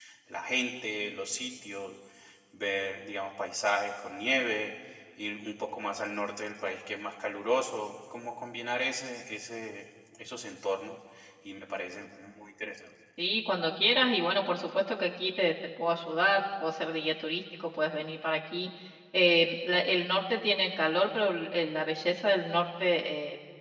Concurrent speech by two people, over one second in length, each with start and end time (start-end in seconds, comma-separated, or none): none